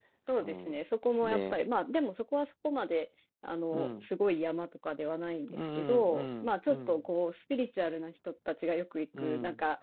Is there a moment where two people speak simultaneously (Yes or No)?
Yes